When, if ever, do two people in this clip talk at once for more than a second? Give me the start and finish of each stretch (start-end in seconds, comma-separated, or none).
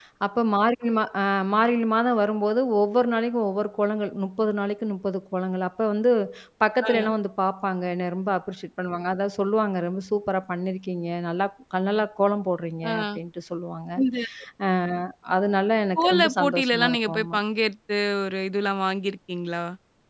16.0-17.4